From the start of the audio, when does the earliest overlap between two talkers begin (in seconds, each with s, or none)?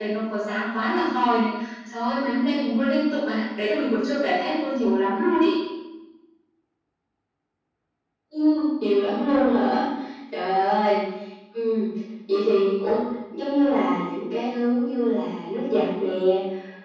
none